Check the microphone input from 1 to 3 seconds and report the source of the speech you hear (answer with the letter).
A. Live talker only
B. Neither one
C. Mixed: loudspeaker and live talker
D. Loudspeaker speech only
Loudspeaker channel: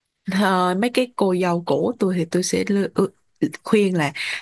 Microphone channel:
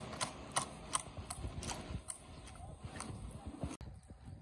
B